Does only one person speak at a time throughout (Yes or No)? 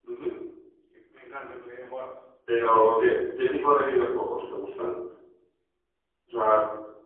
Yes